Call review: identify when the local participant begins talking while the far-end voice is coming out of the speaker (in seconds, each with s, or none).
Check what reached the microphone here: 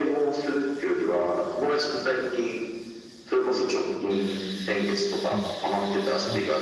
5.3 s